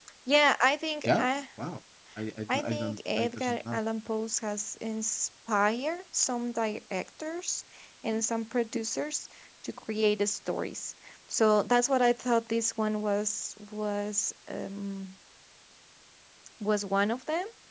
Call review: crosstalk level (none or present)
present